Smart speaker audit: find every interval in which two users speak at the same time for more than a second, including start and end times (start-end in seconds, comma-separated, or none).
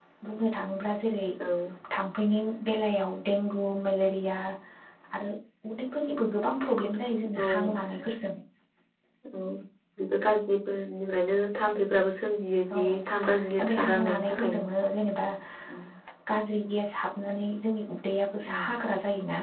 12.8-14.7